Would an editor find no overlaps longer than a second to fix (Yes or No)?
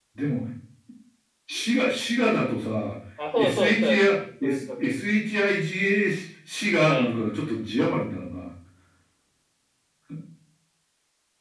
No